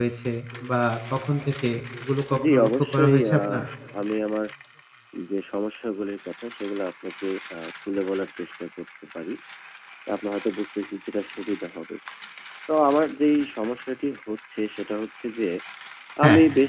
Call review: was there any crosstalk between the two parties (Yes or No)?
Yes